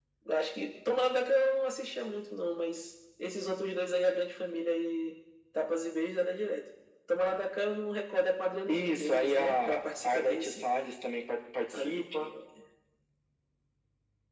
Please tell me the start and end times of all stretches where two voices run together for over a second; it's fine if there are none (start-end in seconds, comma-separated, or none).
8.7-10.7